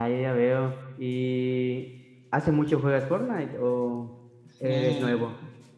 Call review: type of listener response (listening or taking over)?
taking over